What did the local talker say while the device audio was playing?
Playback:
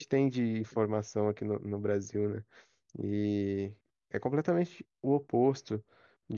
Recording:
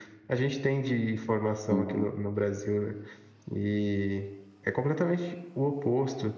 Uhum.

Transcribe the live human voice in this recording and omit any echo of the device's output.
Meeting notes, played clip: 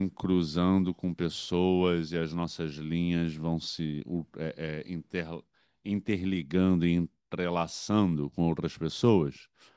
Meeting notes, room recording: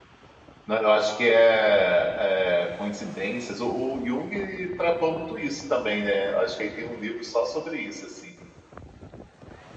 Não, eu acho que é, é coincidências. O, o Jung tratou muito isso também, né? Acho que aí tem um livro só sobre isso, assim,

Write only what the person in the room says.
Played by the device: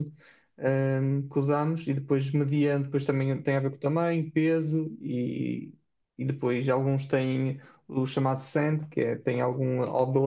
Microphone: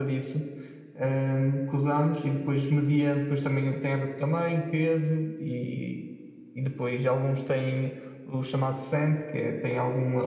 none

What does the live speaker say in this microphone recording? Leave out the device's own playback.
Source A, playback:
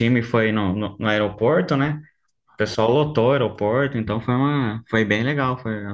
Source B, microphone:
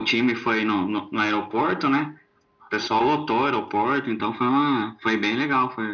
none

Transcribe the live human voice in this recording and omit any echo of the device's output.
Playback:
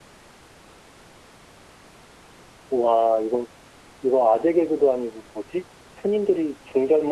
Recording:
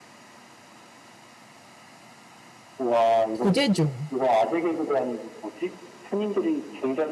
부재중.

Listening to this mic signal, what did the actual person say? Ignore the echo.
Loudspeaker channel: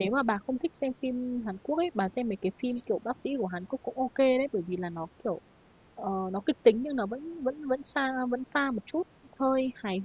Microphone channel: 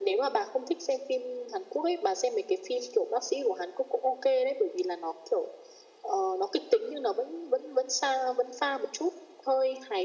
none

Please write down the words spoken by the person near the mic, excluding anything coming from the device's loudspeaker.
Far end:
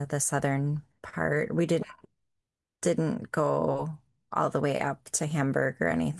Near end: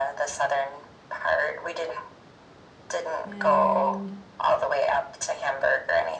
and

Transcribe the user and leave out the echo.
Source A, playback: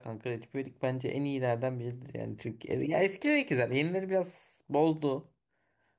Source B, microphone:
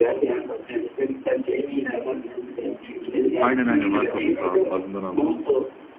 Aynen aynen Vartolu. Ta ağzından aldım lafı.

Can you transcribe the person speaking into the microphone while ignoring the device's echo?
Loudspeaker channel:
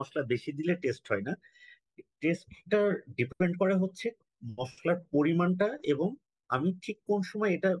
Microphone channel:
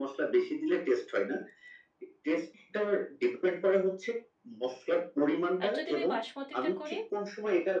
আর যদি আমি বাসমতিতে করি

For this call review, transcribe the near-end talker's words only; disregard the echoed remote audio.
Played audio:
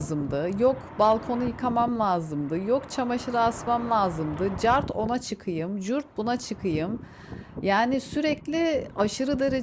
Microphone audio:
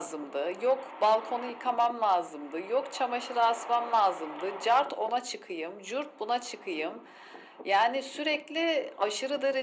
none

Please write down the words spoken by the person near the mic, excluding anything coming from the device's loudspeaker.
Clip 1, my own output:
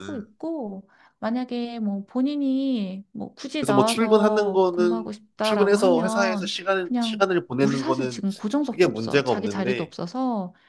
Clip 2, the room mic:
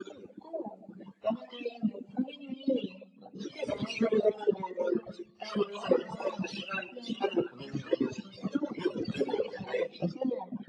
none

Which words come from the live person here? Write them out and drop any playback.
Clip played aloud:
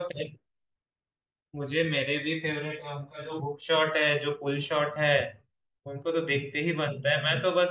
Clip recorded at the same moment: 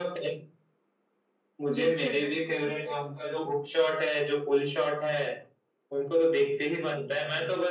बिल्कुल बिल्कुल

